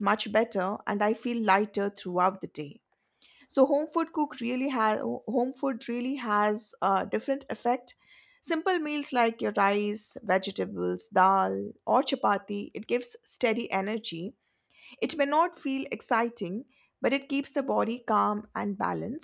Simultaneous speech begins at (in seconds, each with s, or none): none